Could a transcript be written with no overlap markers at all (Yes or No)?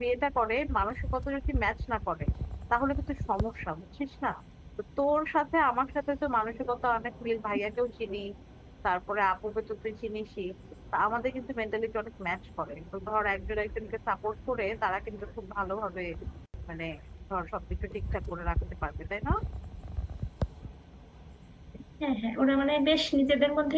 Yes